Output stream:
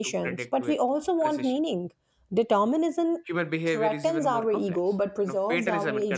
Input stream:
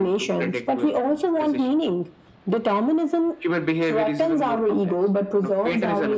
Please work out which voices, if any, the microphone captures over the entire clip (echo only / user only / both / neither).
echo only